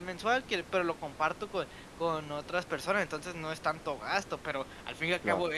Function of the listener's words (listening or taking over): listening